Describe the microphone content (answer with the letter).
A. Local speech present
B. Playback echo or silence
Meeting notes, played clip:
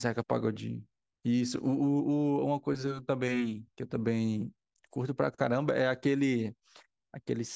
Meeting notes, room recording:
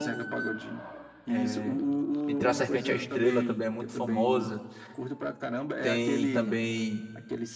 A